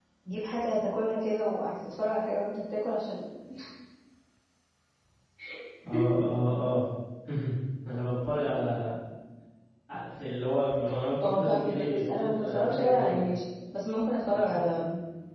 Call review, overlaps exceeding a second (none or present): present